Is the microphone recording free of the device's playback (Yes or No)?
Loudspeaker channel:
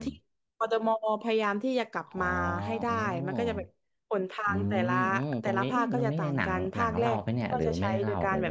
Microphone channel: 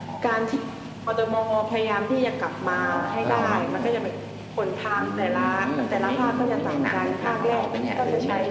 No